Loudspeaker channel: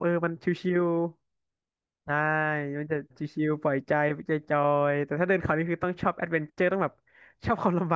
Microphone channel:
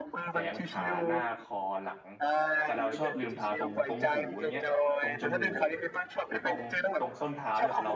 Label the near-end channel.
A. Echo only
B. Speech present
B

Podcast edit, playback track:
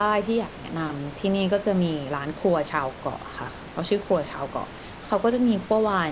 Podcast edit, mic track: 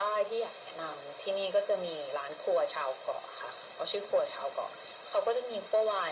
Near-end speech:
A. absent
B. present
A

